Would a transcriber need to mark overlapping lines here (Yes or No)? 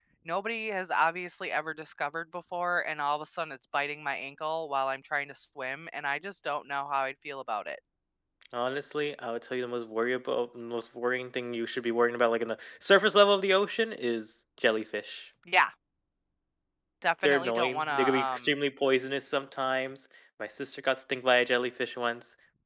Yes